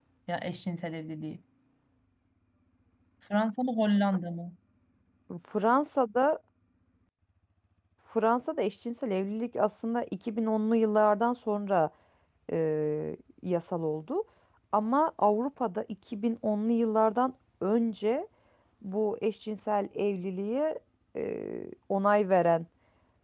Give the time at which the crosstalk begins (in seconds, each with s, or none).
none